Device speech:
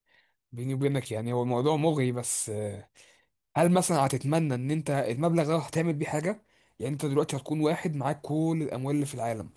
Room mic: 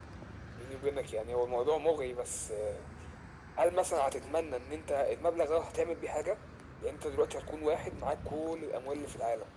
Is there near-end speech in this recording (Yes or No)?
No